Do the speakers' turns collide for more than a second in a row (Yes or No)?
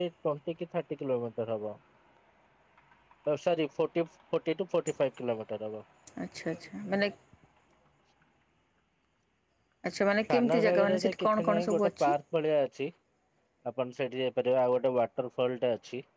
Yes